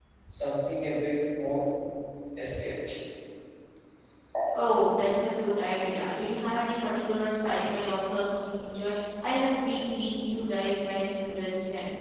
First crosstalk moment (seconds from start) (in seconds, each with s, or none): none